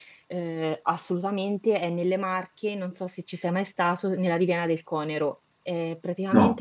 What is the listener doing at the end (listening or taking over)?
listening